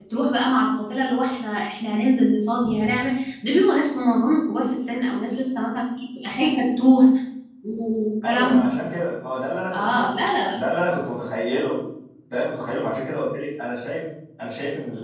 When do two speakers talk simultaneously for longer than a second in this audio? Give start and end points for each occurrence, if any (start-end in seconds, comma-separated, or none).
none